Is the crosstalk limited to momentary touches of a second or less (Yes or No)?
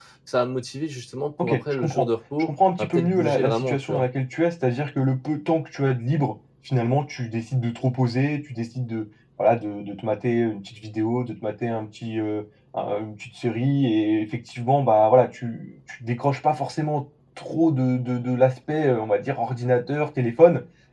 No